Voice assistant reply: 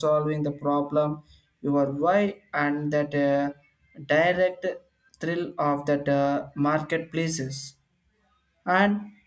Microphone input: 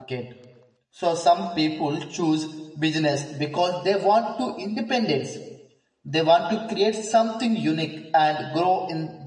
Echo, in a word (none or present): none